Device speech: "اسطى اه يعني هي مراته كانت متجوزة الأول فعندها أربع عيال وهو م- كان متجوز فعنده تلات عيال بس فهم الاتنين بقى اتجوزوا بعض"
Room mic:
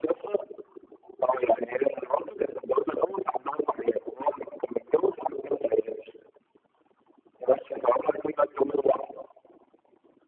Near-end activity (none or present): none